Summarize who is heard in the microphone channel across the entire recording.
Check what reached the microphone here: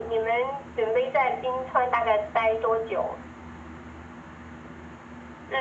echo only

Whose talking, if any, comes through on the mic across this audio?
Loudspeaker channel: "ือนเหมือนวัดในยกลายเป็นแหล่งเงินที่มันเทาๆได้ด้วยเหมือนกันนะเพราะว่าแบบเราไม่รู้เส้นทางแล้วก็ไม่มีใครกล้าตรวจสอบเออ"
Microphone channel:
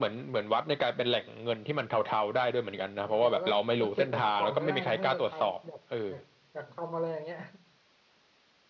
both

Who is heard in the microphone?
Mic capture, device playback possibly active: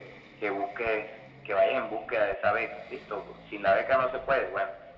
echo only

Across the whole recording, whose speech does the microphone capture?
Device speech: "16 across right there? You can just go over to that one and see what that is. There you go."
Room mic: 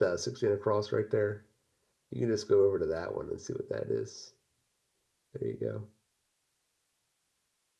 echo only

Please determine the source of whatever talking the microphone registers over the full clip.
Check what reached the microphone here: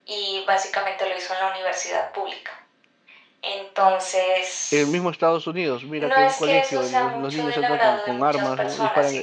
both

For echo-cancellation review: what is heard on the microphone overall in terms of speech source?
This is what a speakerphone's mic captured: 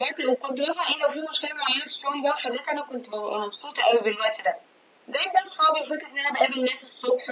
echo only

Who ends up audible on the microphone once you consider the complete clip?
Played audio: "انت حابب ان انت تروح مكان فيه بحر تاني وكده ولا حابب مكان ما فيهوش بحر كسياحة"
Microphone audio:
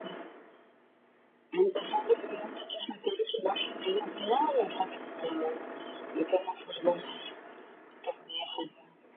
echo only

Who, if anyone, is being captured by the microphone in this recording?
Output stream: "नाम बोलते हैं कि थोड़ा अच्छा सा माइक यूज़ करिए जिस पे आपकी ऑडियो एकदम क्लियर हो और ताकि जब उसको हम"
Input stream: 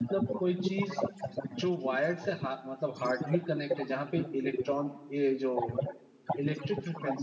both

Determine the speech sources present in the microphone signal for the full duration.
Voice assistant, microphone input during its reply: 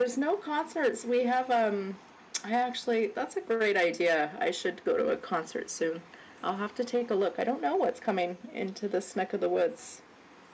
user only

